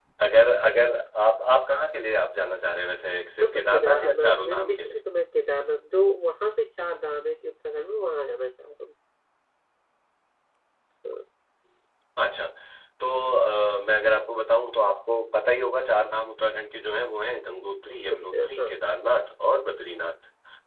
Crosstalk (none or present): present